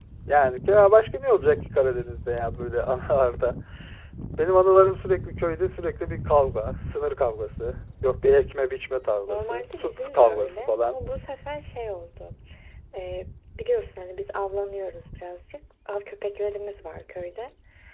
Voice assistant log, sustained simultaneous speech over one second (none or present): present